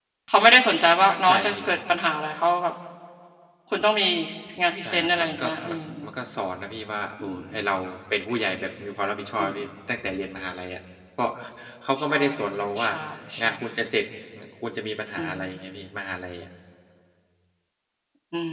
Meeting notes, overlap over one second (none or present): present